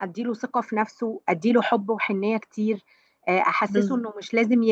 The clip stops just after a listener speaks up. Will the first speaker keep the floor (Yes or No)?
Yes